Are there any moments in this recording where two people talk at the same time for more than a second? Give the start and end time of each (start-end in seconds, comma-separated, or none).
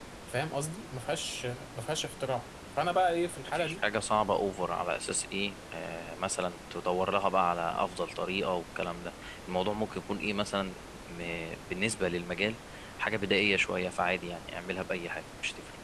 none